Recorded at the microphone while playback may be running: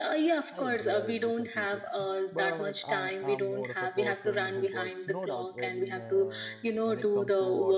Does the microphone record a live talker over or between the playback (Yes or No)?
Yes